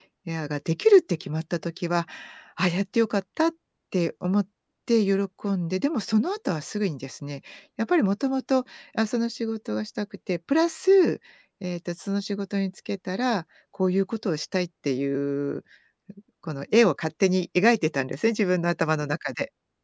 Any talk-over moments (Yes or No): No